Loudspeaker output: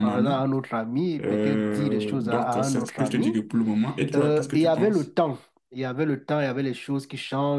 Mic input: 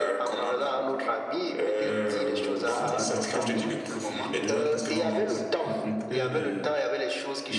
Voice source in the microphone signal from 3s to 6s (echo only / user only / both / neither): both